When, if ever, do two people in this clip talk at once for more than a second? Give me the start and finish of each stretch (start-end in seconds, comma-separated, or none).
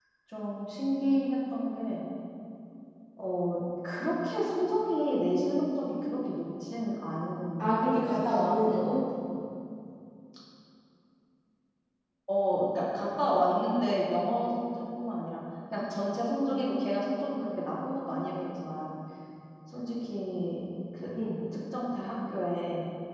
7.6-8.8